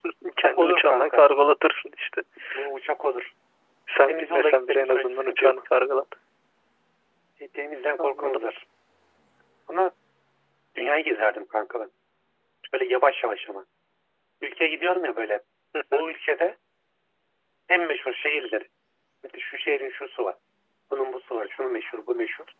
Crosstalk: present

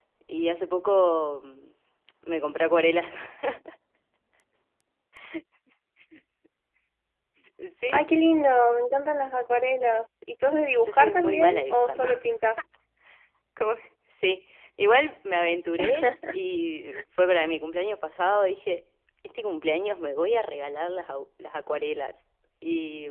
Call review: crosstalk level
present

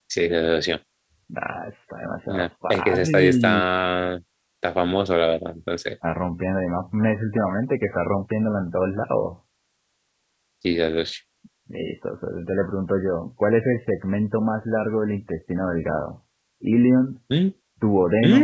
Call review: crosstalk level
present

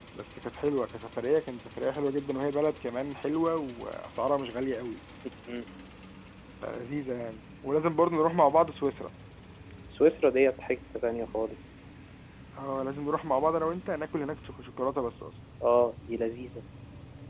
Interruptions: none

